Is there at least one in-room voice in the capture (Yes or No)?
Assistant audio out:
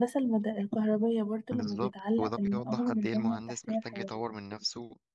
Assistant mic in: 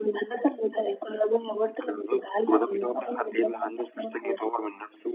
No